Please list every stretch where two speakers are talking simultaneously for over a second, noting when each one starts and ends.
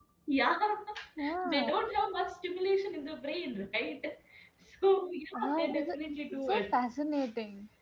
5.3-6.8

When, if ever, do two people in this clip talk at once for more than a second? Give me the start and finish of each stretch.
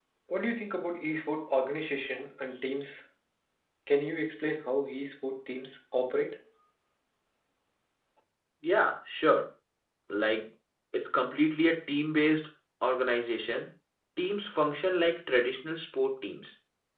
none

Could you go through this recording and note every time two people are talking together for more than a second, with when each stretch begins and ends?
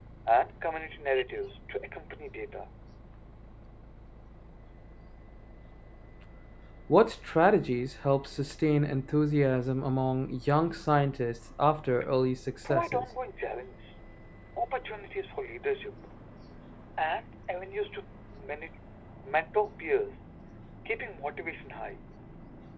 none

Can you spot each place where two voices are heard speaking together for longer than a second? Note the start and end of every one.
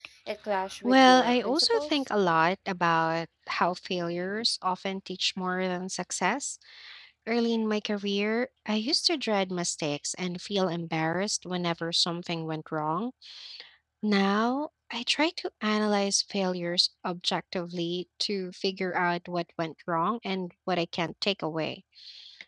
0.8-2.1

